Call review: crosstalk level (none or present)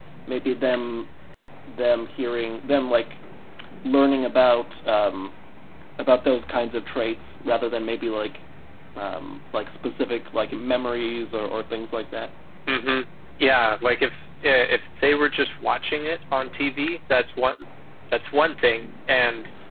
none